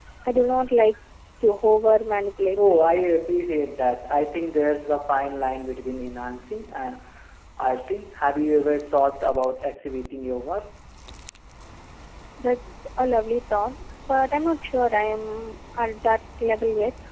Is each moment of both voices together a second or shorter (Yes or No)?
Yes